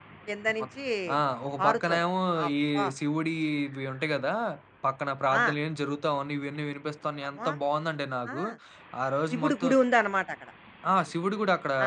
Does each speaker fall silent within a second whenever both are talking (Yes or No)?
Yes